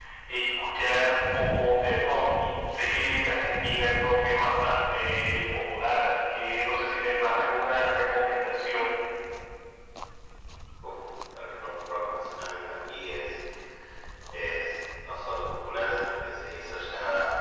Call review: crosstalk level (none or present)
none